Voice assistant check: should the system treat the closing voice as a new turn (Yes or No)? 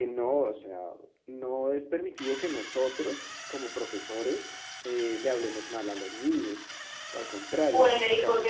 Yes